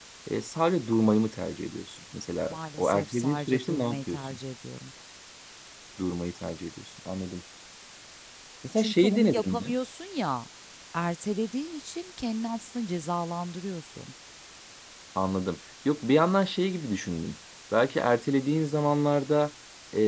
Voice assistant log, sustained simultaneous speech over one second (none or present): present